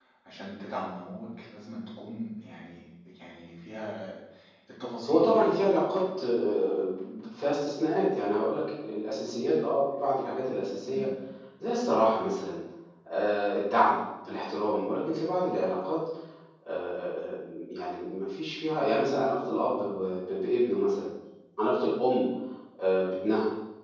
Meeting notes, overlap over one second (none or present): none